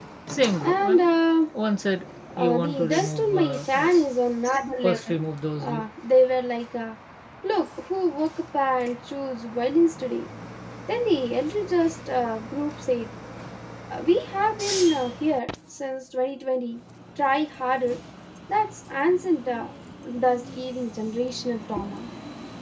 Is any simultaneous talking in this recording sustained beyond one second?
Yes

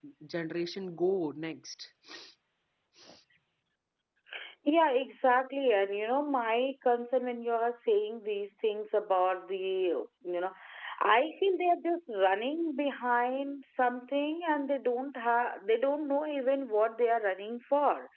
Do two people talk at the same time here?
No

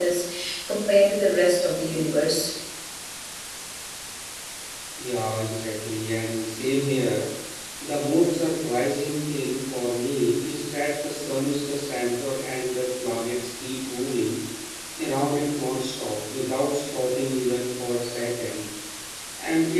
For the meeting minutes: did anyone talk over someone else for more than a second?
No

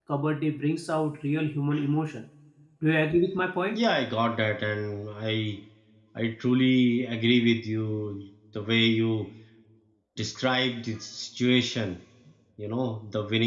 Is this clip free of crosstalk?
Yes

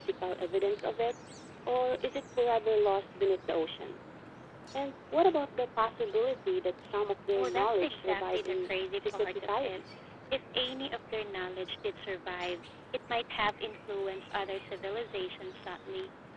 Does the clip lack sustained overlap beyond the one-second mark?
No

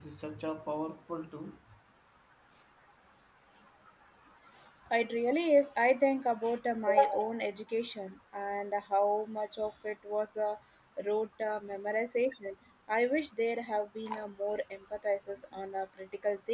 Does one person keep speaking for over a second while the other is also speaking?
No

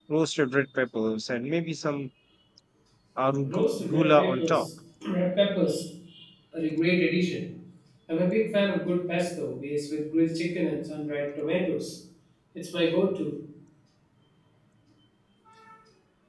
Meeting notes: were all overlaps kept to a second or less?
No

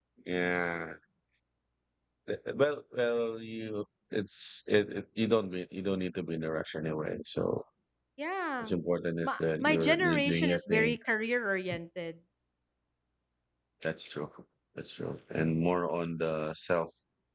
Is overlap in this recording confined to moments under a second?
No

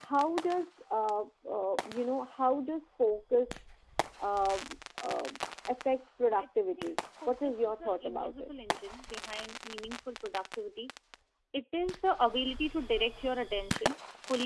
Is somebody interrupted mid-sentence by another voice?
Yes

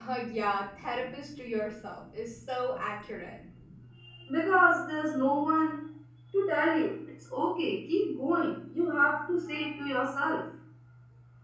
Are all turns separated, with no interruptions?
Yes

